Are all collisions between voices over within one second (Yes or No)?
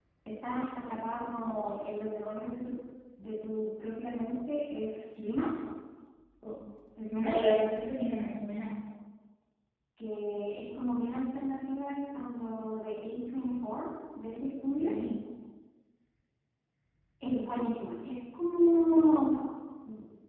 Yes